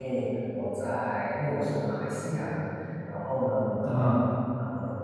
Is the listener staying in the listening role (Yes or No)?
Yes